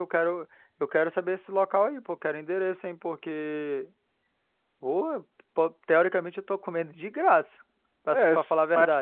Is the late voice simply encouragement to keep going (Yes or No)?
No